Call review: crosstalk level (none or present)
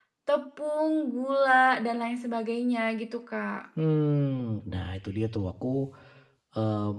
none